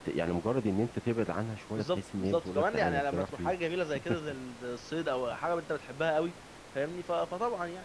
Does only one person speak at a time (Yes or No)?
No